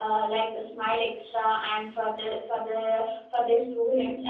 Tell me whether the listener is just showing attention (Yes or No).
Yes